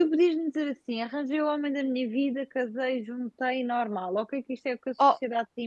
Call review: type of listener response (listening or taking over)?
listening